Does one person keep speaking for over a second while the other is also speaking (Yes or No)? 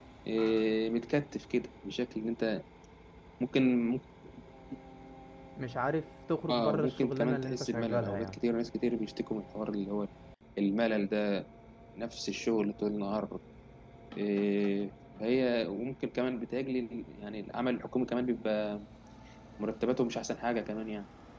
Yes